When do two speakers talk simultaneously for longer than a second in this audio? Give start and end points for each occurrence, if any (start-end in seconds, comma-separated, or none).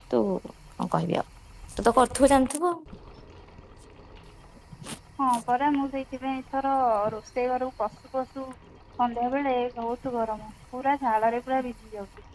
none